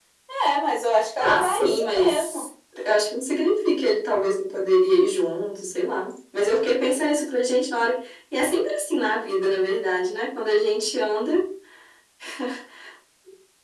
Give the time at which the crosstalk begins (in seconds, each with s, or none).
1.2 s